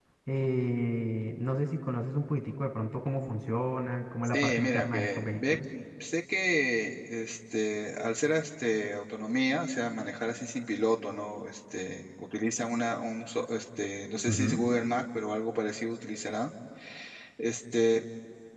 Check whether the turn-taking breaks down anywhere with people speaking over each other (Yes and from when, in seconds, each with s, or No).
Yes, from 4.2 s